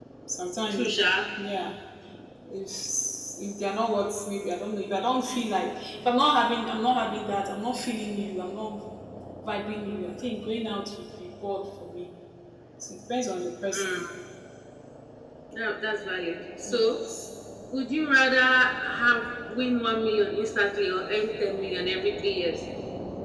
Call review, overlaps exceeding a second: none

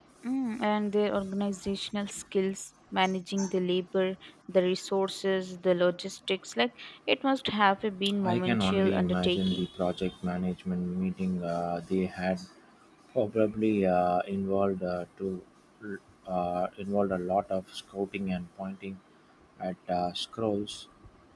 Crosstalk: present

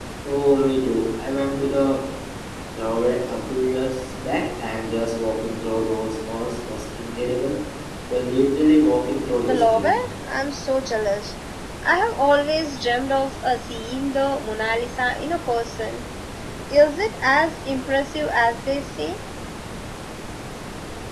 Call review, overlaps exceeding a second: none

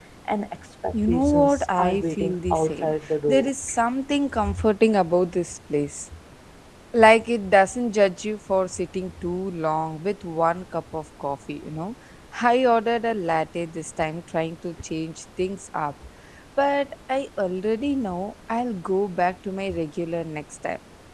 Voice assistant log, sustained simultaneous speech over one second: present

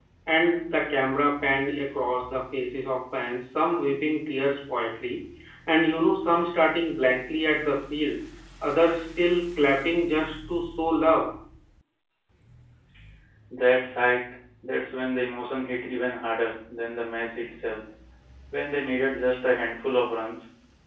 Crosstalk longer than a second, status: none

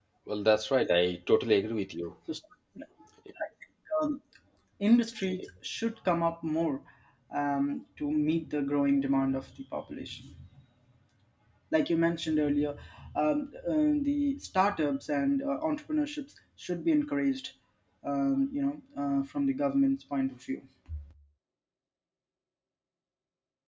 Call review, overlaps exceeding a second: none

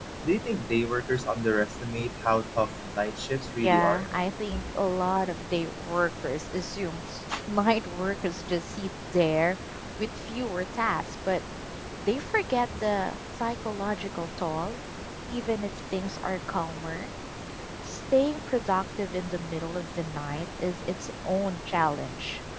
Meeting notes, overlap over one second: none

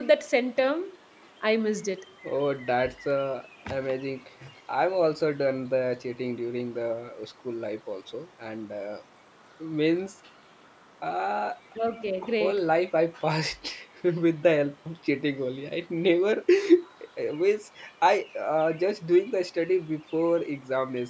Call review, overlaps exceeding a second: none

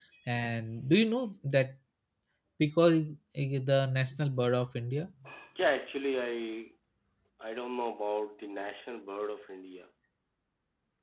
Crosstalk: none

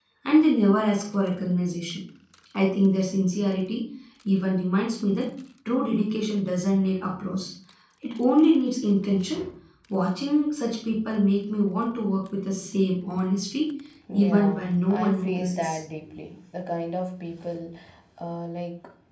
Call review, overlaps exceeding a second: present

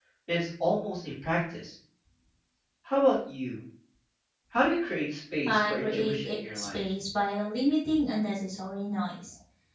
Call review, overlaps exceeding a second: present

